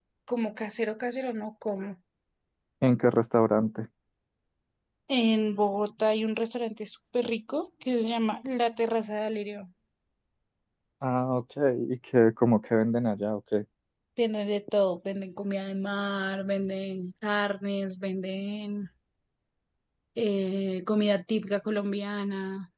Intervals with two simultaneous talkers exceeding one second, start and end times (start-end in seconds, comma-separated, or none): none